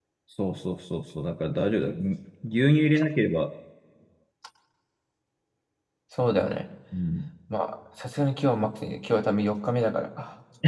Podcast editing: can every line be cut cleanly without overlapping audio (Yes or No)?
Yes